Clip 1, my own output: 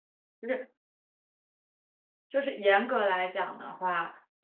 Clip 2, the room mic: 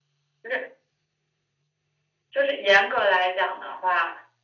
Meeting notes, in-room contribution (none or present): none